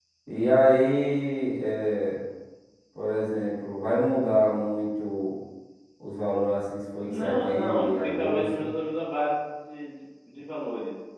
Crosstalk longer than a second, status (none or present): present